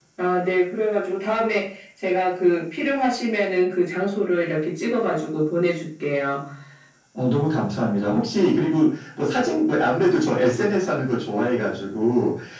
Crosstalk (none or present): none